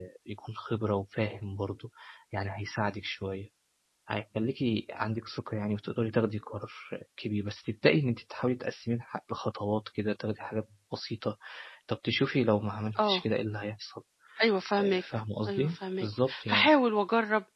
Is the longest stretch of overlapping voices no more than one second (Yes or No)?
No